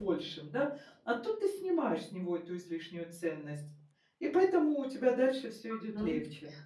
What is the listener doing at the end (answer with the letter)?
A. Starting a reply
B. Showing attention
A